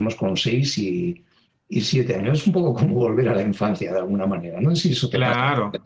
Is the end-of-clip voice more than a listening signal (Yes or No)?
Yes